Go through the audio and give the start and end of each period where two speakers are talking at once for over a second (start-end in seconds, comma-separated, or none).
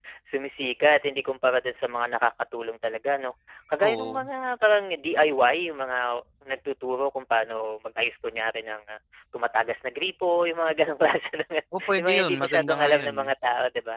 11.9-13.3